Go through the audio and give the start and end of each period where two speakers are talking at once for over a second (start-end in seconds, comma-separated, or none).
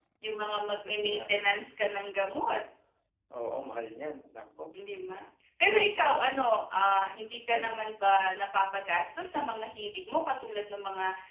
none